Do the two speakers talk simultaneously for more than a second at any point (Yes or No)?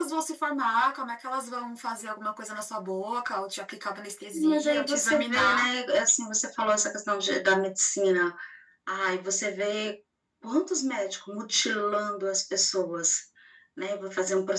Yes